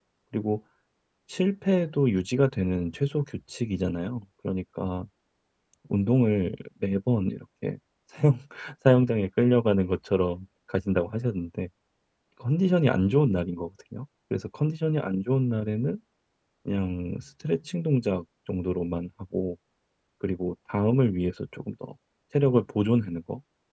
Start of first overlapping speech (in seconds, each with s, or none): none